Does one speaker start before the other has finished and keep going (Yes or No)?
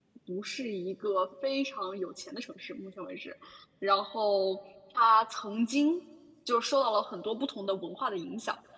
No